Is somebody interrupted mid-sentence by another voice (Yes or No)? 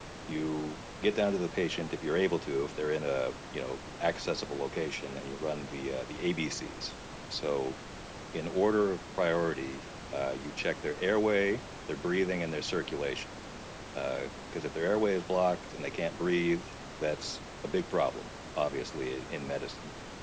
No